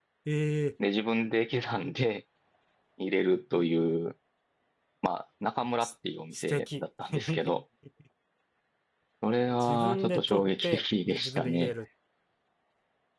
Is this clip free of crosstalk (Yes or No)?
No